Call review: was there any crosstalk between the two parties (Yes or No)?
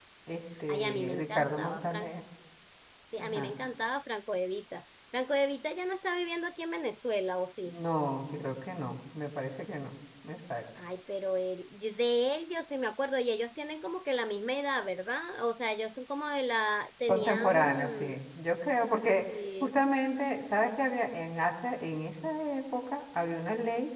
Yes